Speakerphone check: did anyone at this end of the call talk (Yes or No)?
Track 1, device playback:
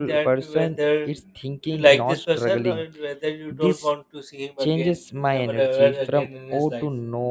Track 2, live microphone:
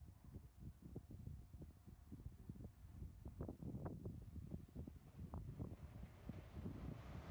No